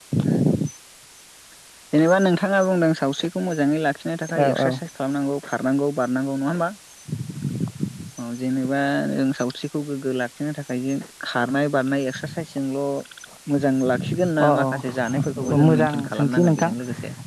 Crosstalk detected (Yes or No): Yes